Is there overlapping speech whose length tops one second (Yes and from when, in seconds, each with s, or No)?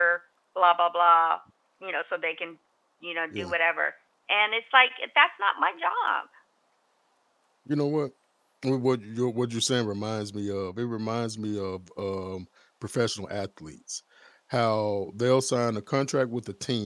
No